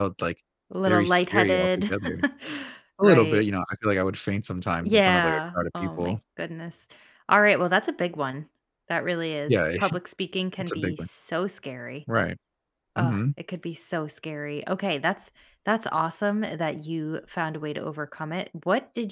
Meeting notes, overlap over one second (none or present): present